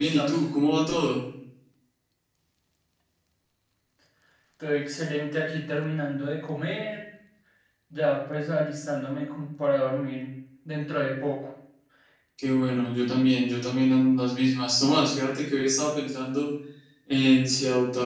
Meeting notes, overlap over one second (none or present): none